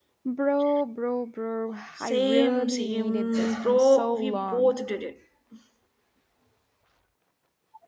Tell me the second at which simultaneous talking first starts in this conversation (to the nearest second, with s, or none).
2 s